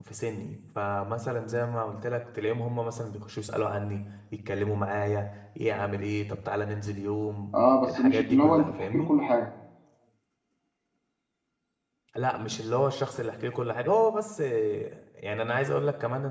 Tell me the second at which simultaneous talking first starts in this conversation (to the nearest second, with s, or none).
8 s